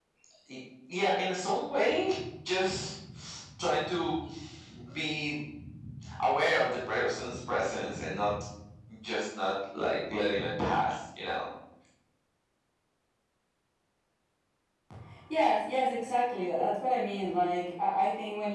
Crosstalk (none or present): none